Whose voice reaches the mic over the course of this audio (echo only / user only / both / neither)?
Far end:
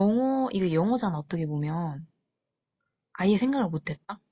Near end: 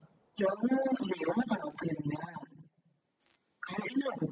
echo only